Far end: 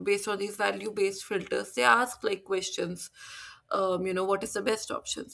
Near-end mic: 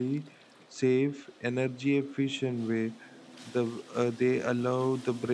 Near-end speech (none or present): present